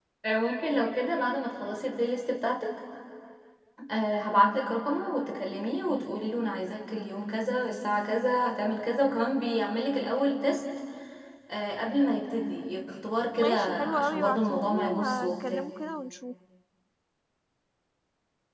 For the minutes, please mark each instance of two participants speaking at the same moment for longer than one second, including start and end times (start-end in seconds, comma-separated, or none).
13.4-15.6